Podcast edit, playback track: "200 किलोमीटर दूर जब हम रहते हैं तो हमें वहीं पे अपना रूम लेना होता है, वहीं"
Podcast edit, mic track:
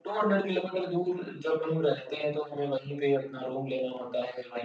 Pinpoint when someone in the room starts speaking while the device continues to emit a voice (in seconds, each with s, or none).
none